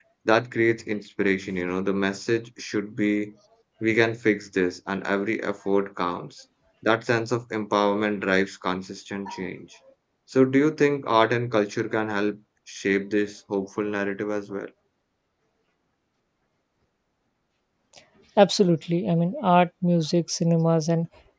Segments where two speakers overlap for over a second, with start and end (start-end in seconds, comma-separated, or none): none